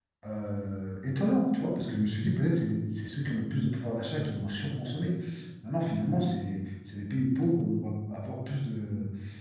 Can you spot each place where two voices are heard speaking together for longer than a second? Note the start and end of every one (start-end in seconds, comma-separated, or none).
none